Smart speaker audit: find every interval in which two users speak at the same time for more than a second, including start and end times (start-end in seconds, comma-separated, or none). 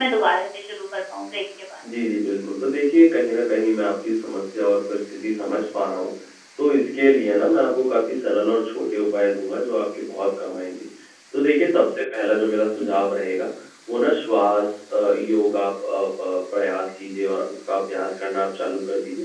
none